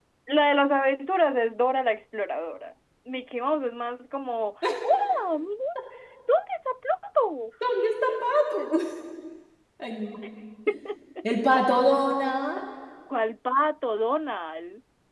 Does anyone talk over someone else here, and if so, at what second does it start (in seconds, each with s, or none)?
none